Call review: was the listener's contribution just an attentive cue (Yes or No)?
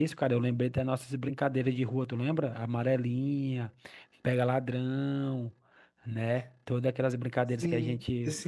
No